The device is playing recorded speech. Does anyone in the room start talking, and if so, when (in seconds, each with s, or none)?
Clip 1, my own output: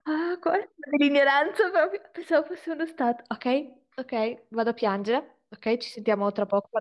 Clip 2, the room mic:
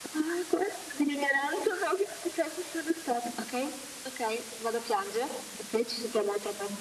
none